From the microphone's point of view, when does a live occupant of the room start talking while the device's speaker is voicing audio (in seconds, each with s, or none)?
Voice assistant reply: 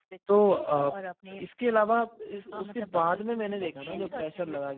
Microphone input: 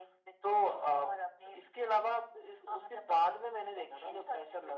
none